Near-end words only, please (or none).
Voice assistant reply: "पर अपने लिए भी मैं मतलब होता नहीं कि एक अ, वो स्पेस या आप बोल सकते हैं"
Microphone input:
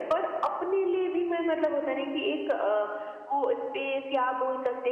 none